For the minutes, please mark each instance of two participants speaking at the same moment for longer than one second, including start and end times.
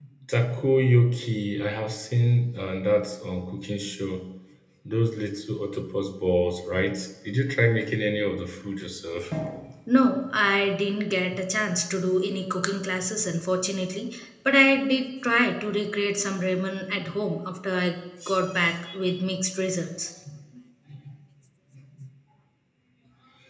none

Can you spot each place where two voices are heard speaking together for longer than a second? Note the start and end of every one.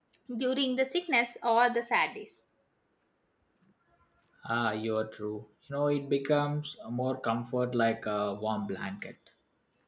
none

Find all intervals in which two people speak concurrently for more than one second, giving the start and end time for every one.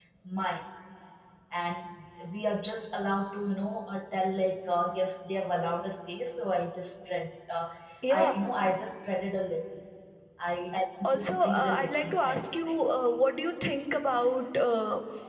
11.1-12.8

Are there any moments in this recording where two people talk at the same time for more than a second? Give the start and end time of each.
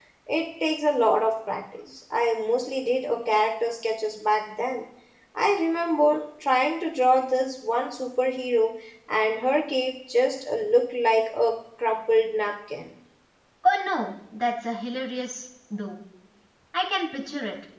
none

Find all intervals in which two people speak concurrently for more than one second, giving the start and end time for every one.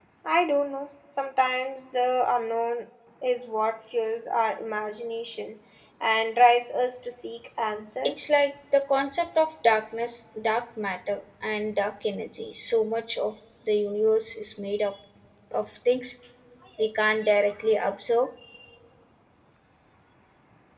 none

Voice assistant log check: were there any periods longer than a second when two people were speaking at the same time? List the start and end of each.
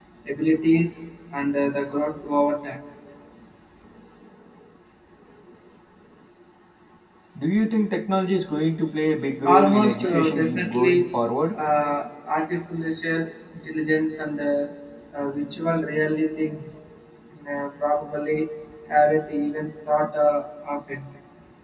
9.4-11.0

